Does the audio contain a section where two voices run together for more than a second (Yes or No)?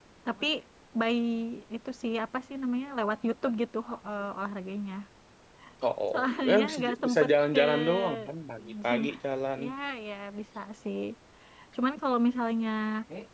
Yes